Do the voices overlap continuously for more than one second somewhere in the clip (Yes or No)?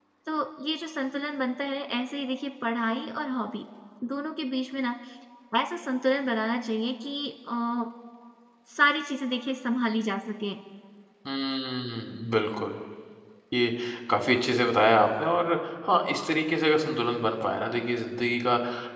No